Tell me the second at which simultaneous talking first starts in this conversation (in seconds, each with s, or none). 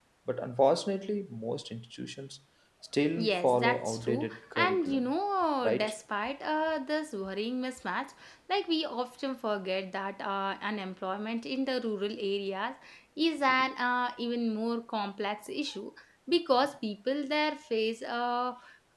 3.2 s